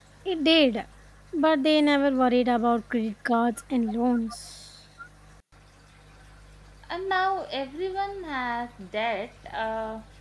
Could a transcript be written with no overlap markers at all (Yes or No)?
Yes